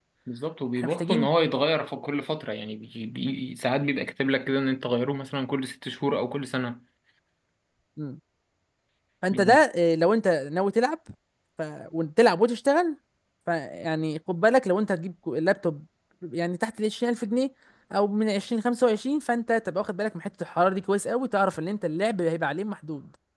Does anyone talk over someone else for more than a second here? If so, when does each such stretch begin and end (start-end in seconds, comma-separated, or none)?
none